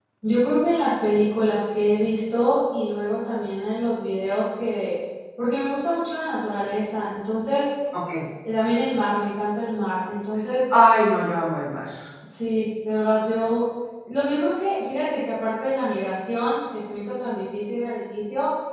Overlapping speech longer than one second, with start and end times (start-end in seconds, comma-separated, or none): none